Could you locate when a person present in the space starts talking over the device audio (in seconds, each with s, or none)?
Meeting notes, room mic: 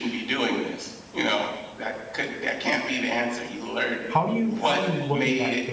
4.0 s